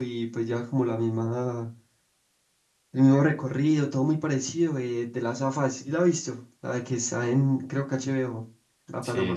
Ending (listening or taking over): taking over